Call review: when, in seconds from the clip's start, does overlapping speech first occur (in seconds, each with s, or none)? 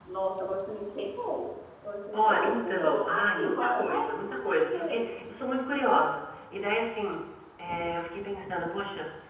2.1 s